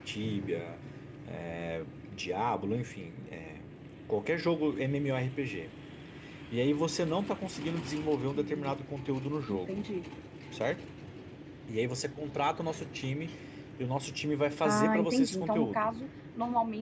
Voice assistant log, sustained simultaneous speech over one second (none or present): present